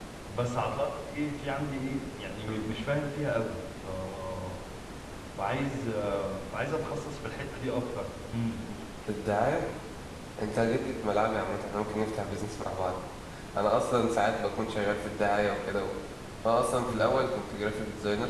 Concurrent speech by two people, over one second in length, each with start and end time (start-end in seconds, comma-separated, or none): none